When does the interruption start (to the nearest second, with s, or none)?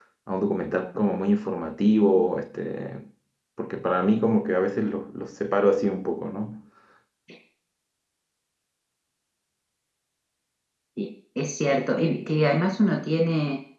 none